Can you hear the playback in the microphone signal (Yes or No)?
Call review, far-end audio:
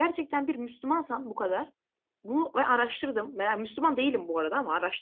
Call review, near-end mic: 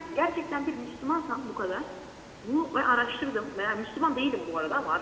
Yes